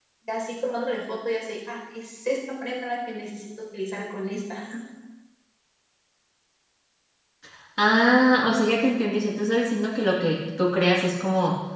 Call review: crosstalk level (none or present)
none